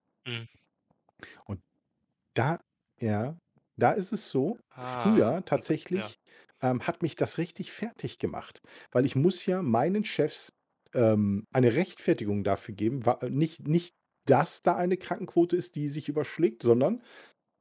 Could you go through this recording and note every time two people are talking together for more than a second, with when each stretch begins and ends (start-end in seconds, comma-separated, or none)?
4.8-6.1